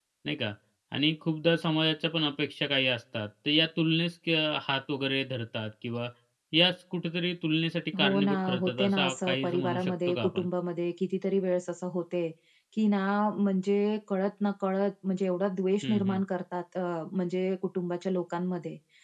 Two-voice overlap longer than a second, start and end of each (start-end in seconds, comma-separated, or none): 8.0-10.4